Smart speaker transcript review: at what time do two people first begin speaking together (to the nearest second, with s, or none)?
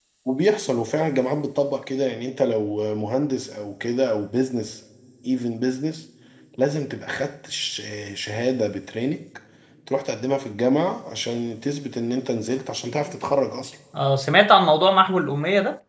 none